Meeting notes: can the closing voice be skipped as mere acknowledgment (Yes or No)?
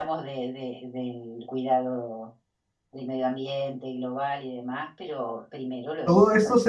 No